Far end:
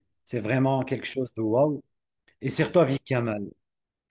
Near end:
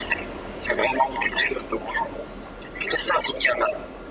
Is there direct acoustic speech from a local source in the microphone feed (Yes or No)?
No